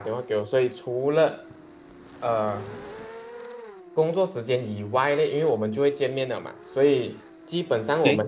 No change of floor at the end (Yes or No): Yes